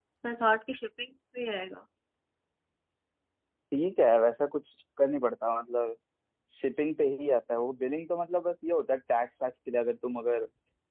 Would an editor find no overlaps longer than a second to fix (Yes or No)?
Yes